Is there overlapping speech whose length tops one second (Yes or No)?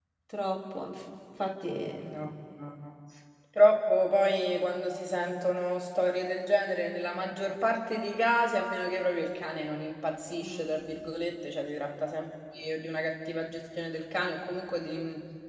No